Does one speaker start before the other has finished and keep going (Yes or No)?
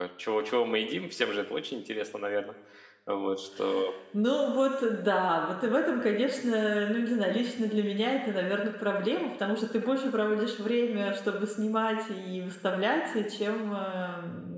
No